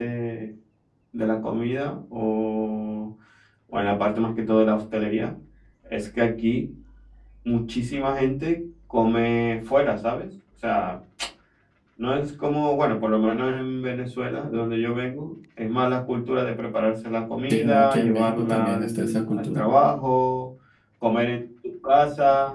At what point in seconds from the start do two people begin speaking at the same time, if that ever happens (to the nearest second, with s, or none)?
17 s